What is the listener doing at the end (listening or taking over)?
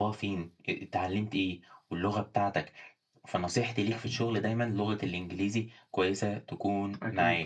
taking over